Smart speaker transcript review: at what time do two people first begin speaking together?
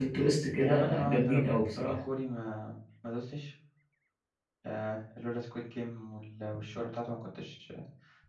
1 s

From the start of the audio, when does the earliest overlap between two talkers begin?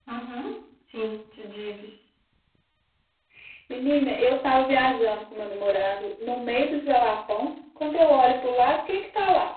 none

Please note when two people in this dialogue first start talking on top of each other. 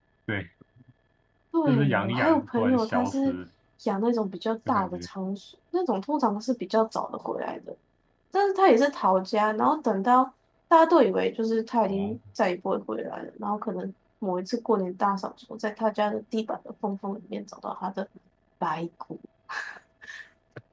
2 s

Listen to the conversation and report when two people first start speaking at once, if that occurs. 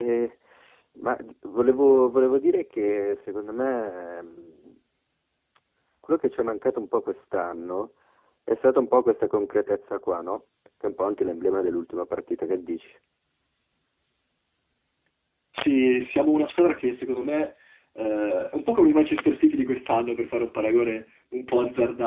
none

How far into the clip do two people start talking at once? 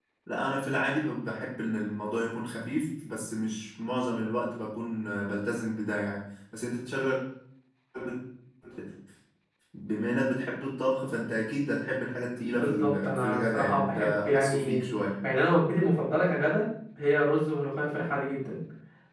13 s

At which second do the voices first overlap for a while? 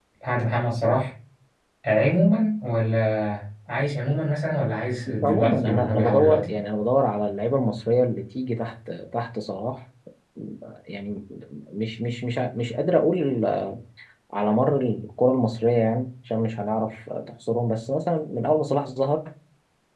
5 s

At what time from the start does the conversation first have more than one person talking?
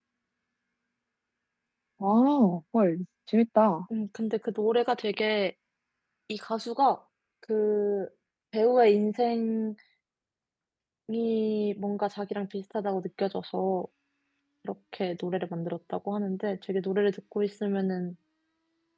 none

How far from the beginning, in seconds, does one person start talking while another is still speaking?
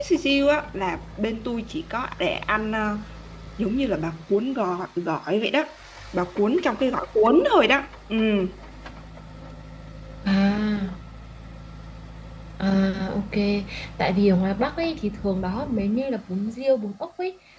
none

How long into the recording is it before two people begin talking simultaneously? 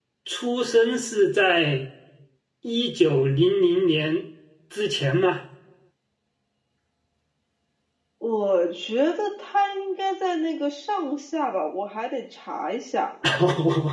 none

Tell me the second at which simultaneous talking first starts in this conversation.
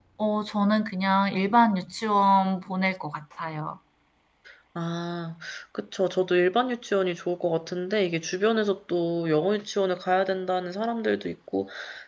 none

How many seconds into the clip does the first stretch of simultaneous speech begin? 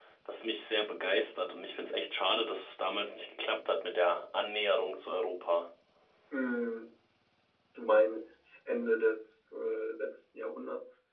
none

